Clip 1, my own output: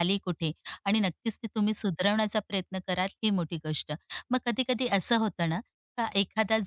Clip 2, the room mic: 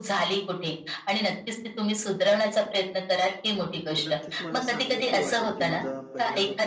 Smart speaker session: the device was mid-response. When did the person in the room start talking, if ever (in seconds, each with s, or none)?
3.9 s